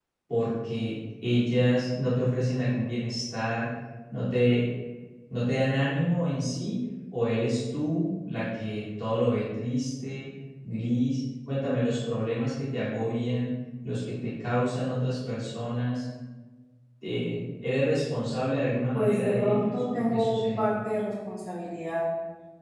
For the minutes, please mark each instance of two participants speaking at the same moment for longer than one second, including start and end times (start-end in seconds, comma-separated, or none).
18.9-20.7